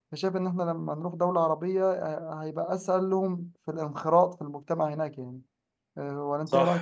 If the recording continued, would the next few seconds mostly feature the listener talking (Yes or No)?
Yes